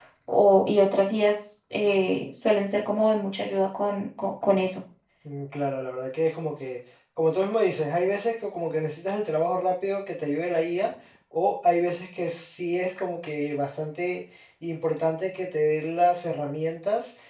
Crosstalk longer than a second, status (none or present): none